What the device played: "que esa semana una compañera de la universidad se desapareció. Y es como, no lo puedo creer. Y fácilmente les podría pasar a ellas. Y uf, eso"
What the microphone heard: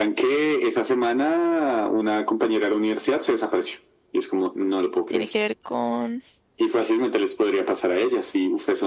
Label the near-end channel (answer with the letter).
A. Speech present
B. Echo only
A